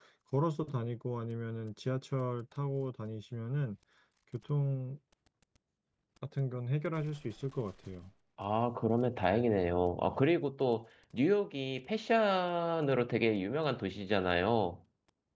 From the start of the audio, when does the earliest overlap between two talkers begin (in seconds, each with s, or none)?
none